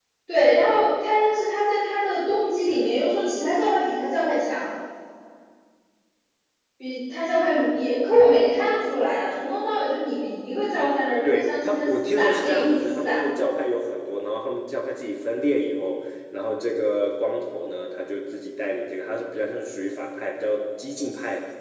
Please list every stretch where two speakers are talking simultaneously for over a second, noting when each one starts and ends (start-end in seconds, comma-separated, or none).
11.3-13.2